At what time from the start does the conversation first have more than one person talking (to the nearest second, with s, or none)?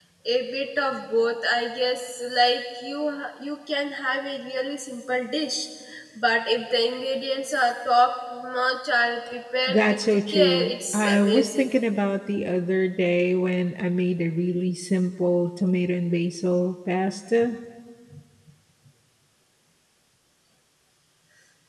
10 s